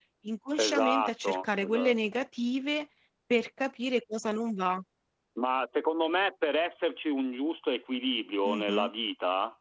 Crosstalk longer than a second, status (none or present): present